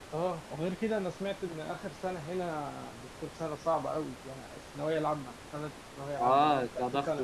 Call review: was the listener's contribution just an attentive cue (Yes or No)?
No